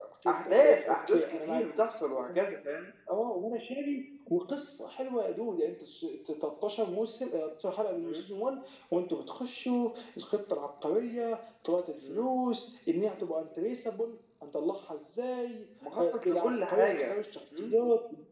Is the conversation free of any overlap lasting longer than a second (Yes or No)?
No